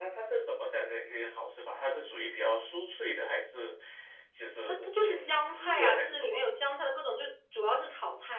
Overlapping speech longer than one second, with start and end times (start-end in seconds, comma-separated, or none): 4.7-6.5